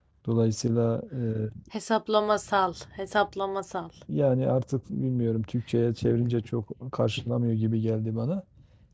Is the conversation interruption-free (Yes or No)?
Yes